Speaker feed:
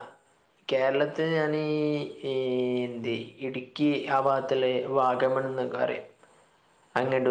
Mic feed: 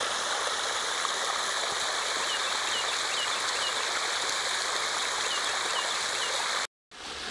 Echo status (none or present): none